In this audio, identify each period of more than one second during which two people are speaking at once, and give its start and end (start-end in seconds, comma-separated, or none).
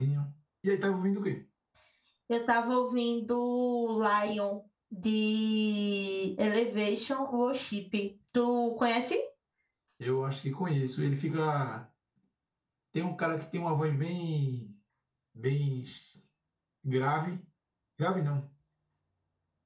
none